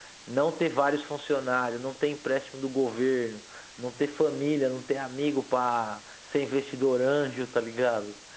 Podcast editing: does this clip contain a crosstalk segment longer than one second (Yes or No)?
No